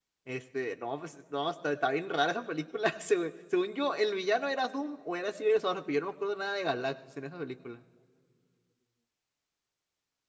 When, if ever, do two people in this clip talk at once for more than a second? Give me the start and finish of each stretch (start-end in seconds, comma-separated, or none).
none